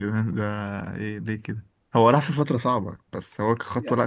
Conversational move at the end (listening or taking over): taking over